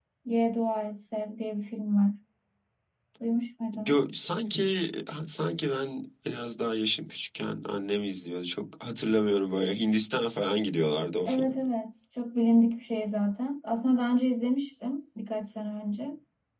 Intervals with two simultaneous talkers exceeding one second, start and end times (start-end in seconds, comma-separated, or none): none